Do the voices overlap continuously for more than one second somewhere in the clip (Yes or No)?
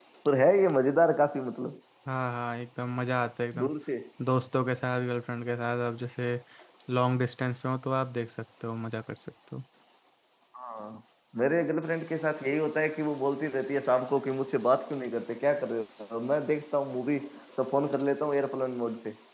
No